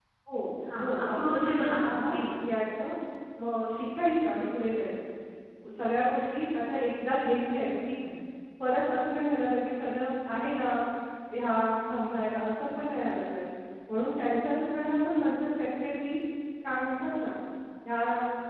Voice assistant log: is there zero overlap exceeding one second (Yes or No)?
No